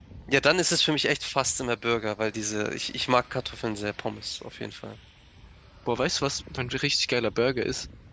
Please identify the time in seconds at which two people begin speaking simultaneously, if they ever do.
none

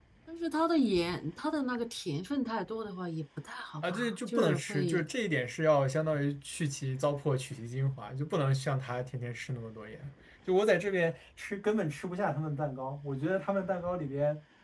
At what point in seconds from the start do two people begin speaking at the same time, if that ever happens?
4 s

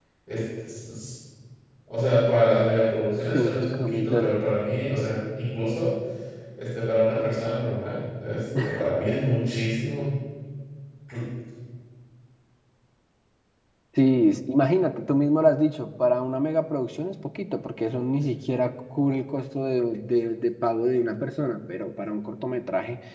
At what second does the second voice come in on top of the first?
3 s

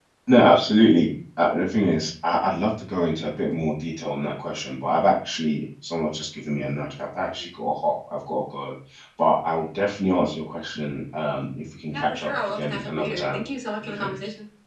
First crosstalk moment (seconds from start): 12 s

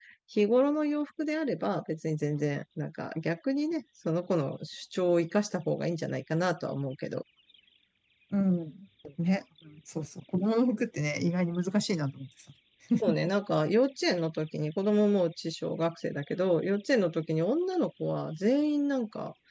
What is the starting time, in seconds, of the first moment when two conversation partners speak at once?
none

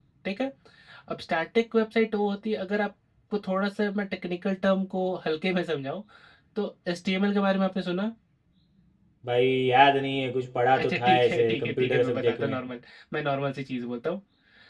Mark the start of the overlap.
11 s

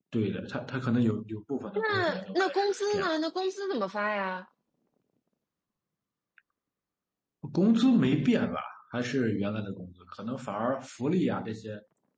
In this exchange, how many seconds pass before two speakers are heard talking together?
2 s

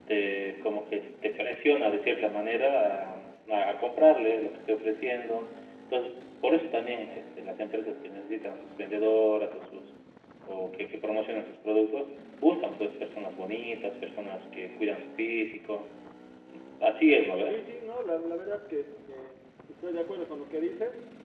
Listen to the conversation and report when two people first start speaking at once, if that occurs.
none

